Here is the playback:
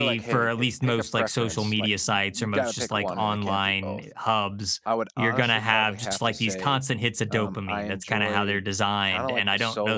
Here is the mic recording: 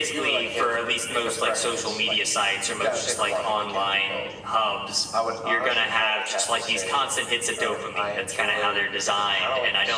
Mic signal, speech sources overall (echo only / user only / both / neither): echo only